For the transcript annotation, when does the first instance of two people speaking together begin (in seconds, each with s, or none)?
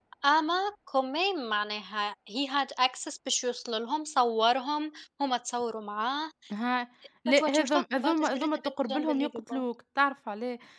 7.3 s